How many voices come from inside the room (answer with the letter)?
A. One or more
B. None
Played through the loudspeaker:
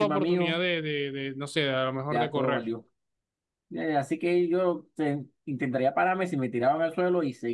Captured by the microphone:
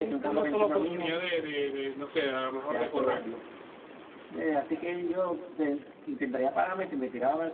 B